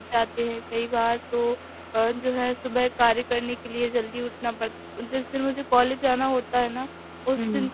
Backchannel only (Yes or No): Yes